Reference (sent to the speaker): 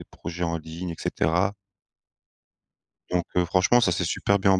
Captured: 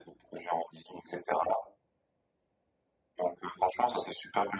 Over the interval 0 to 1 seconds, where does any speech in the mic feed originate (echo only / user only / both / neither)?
echo only